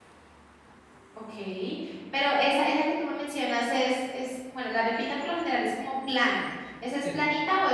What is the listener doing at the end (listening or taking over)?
listening